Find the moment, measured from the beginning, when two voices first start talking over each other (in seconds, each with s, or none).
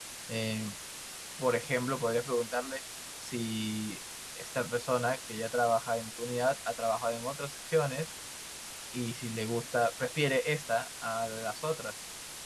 none